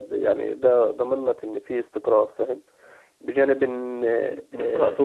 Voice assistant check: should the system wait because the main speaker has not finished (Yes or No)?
No